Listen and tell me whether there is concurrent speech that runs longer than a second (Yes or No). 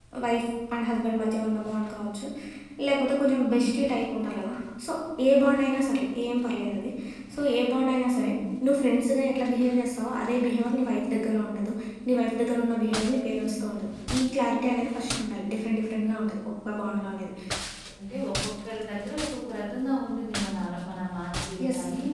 No